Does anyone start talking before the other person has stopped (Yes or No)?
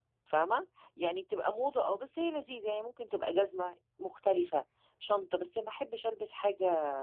No